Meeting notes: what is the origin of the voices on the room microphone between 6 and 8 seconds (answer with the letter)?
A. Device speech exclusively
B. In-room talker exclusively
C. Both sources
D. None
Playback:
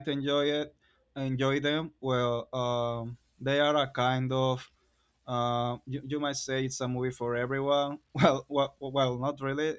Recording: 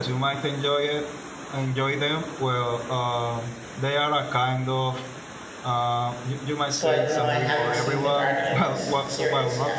C